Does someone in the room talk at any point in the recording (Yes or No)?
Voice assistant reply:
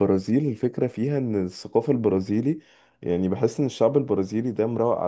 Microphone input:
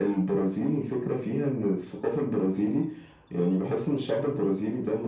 No